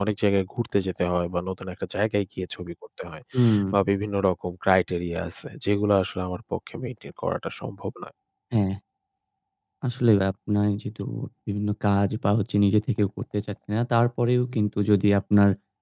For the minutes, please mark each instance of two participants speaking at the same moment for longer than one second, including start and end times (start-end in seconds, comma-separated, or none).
none